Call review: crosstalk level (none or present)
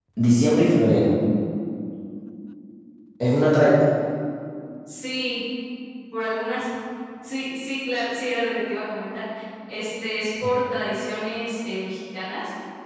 none